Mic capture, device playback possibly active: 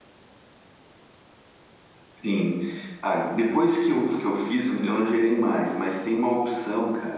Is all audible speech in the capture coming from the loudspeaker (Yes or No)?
No